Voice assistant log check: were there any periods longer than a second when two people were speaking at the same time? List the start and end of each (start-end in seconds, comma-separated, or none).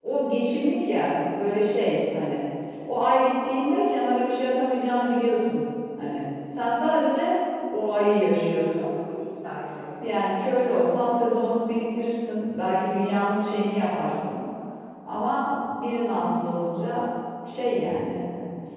none